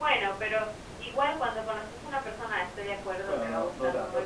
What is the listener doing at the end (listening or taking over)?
taking over